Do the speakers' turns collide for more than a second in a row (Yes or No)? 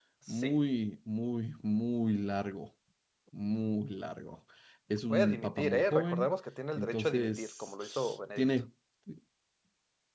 Yes